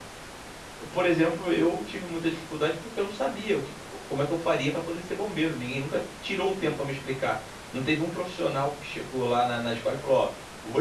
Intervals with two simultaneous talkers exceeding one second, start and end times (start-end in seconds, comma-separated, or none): none